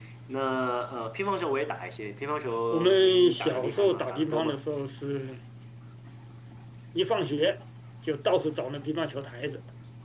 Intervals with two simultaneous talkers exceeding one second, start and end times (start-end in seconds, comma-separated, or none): 2.7-4.6